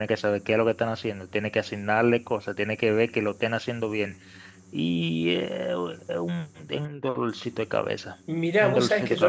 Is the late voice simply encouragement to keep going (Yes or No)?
No